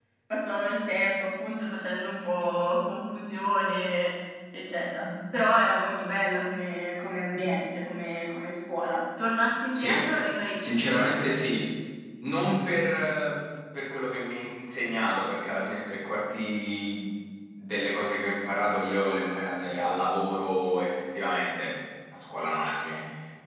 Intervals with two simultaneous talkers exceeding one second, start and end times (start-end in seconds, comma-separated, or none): none